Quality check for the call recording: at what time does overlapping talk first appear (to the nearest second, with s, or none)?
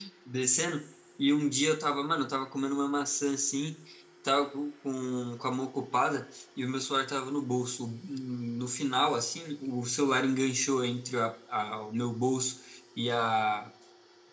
none